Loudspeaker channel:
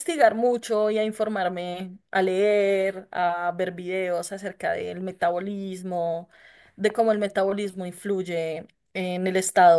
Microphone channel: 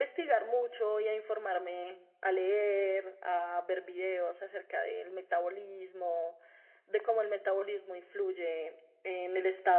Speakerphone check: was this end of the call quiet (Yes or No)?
Yes